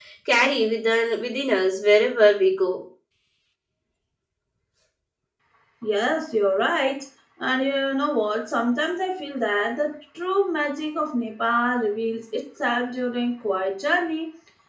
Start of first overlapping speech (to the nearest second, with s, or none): none